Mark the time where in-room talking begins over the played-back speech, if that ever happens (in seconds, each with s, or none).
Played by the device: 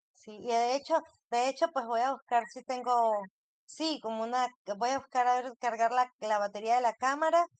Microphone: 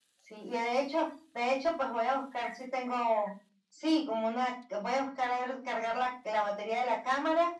none